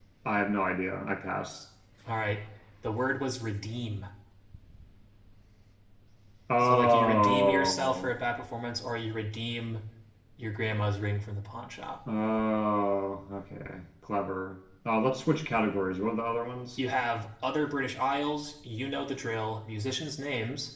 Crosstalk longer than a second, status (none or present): present